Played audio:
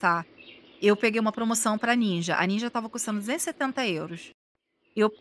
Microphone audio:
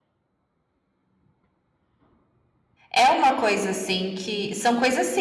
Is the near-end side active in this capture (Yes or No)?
Yes